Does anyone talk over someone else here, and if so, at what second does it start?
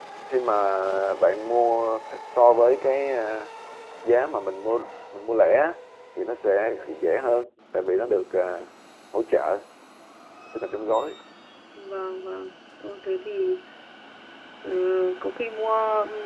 none

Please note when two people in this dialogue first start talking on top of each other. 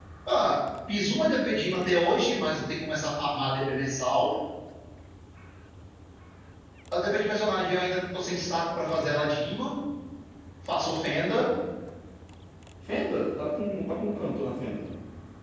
none

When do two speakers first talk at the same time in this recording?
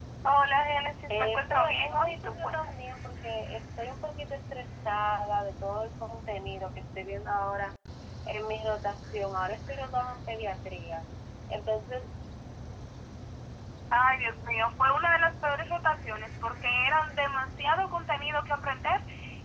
1 s

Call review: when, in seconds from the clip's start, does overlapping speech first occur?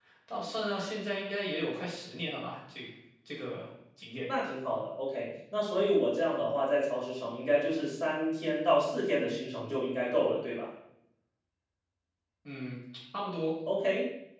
none

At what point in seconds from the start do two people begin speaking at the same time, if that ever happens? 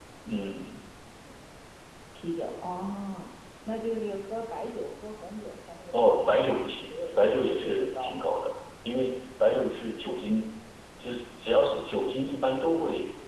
6 s

